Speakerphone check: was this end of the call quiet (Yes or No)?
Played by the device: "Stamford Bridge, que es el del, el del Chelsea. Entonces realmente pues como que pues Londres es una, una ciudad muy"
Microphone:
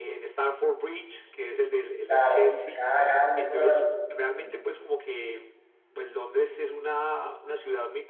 No